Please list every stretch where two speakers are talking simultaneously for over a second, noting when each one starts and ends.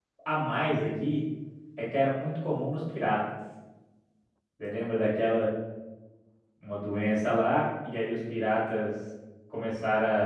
none

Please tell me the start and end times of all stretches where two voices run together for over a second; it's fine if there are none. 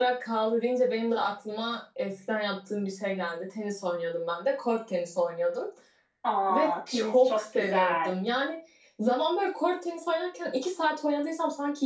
6.5-8.1

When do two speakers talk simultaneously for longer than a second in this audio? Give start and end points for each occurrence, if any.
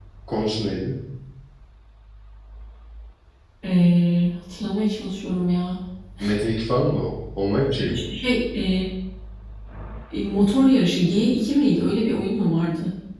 none

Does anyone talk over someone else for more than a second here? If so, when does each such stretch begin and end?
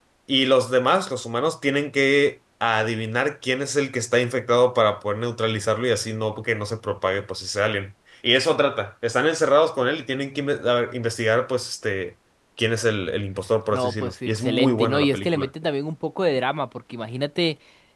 13.7-15.5

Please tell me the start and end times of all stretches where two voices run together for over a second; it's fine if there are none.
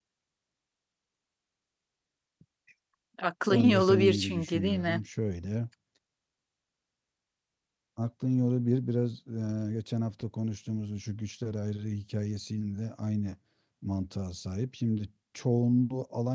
3.5-5.0

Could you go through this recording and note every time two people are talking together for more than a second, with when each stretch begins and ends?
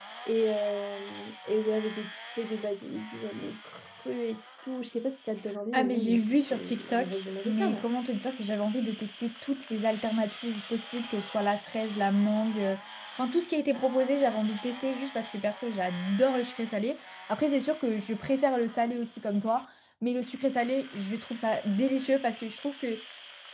5.7-7.8

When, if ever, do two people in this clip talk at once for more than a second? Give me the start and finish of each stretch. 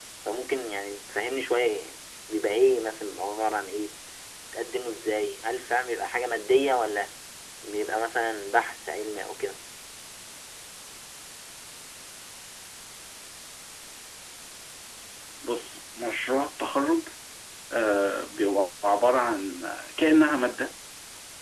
none

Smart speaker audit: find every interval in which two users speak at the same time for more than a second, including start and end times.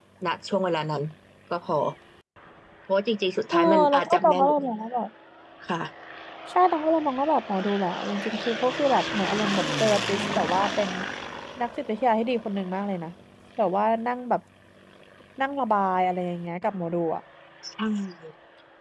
3.5-4.8

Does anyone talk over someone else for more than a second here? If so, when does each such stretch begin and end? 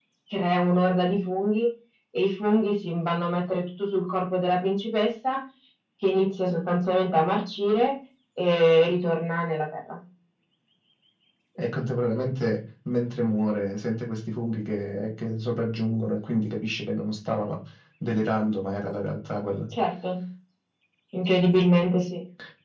none

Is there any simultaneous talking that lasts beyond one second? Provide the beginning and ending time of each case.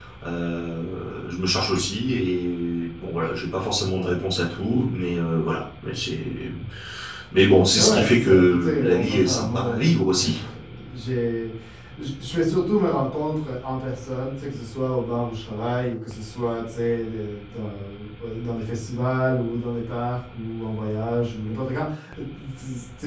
7.8-10.3

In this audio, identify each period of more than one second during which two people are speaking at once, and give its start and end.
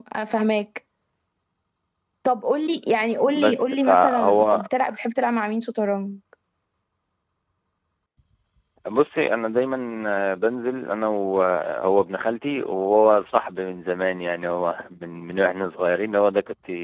3.2-4.6

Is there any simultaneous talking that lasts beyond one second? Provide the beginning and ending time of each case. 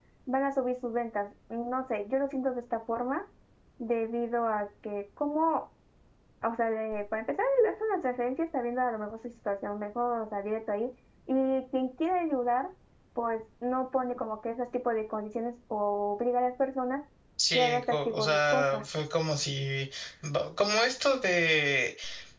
17.5-18.8

